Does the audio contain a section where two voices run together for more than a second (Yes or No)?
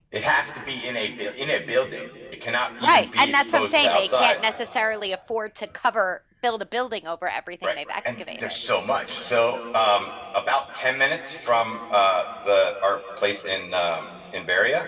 Yes